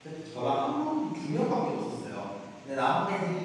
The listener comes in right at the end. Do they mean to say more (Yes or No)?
No